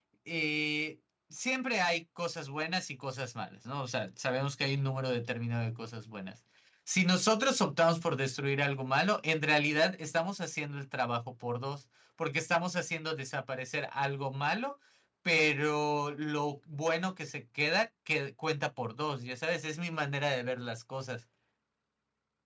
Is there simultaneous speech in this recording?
No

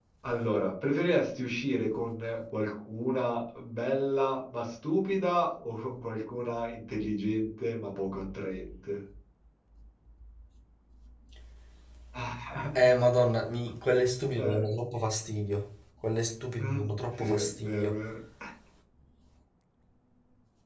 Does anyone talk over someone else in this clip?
Yes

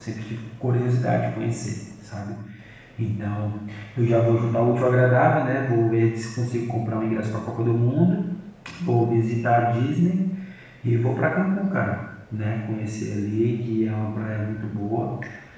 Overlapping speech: No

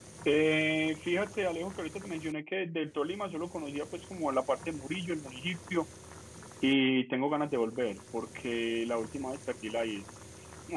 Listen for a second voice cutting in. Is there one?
No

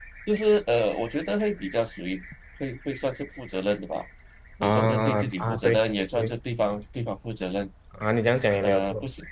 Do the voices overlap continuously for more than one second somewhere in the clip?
Yes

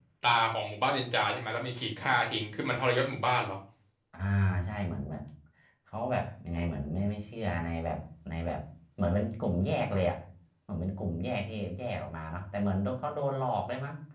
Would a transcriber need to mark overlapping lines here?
No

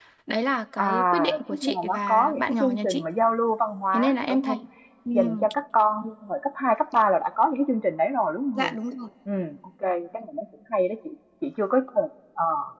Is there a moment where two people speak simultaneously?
Yes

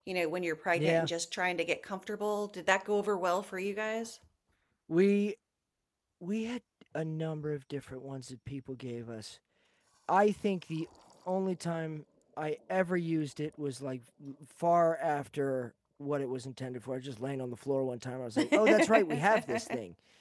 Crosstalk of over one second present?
Yes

